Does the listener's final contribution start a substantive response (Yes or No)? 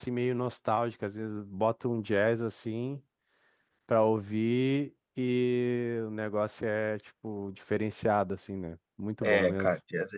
Yes